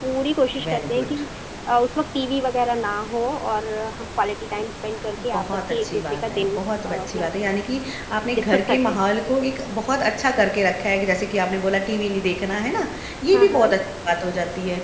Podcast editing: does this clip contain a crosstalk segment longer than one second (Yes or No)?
Yes